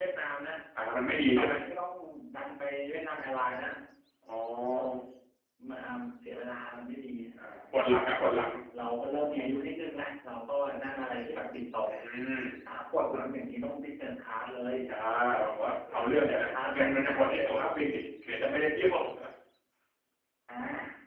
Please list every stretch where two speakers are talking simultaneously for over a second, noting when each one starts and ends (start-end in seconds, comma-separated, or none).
16.1-17.9